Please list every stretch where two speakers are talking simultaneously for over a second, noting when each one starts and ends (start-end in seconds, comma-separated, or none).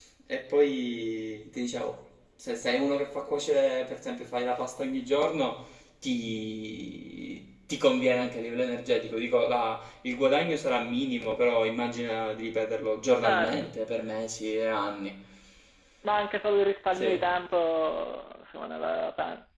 none